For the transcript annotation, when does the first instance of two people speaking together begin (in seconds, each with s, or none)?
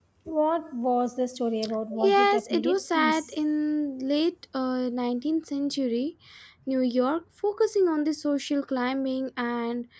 1.9 s